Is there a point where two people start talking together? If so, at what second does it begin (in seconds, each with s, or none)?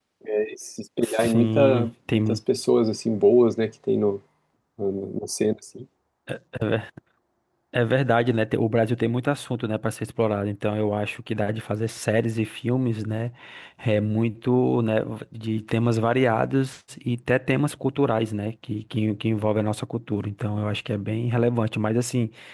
1.0 s